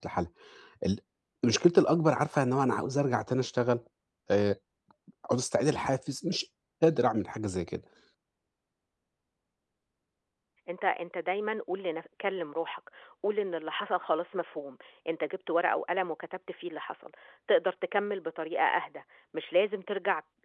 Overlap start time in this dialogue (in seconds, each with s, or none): none